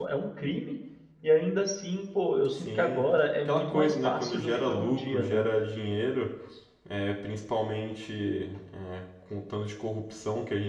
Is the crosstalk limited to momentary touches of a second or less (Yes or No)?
No